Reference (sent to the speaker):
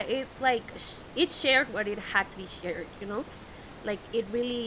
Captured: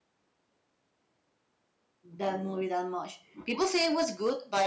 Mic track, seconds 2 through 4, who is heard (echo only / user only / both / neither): user only